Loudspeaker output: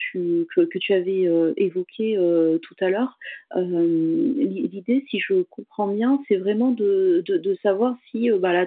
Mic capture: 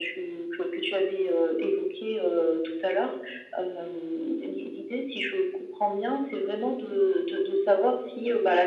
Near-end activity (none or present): none